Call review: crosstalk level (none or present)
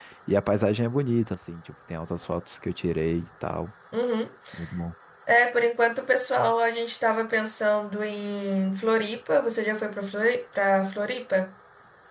none